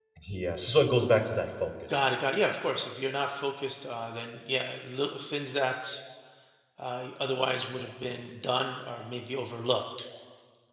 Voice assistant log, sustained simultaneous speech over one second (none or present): none